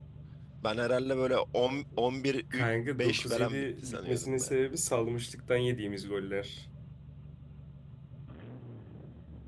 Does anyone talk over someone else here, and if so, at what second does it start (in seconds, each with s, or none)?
2.5 s